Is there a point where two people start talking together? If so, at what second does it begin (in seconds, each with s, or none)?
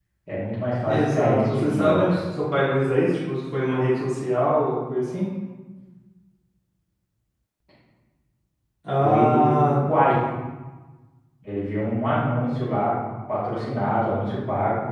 0.8 s